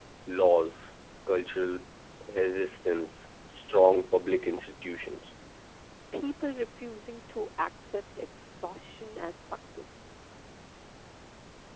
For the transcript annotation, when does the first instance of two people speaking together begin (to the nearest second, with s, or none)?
none